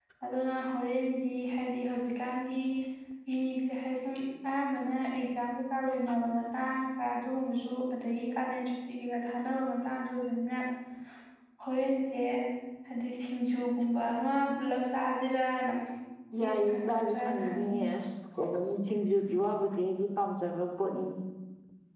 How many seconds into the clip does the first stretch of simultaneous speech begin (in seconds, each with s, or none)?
16.4 s